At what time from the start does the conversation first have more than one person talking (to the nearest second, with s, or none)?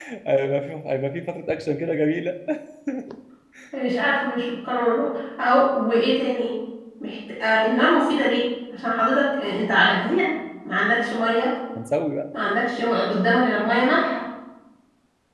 none